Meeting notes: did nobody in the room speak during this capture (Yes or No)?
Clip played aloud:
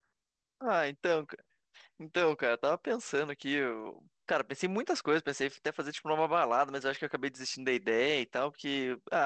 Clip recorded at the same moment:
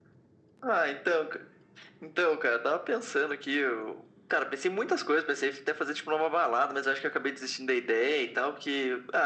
Yes